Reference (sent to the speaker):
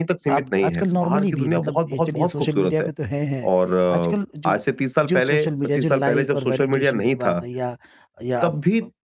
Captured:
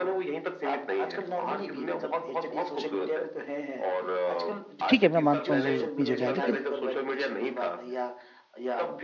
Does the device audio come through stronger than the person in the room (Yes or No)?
No